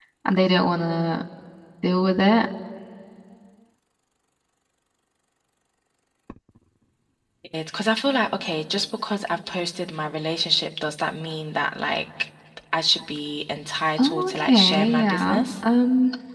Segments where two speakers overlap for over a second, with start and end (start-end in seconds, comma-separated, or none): 14.0-15.5